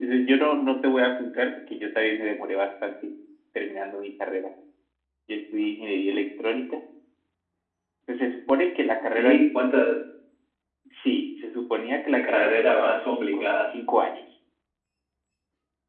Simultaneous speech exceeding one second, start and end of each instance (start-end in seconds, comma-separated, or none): 12.1-13.7